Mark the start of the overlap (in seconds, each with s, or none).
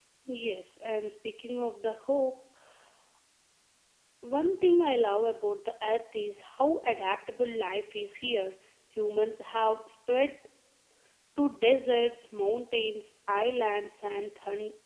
none